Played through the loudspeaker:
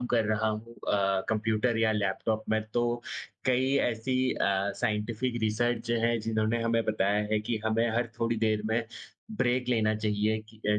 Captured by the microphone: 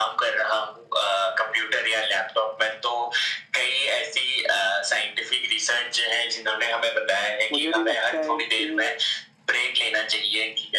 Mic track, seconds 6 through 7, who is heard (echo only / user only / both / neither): echo only